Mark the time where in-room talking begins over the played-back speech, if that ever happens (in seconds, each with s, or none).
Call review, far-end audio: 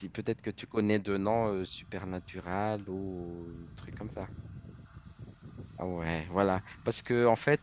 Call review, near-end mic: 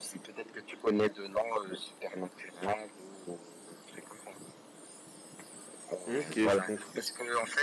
6.0 s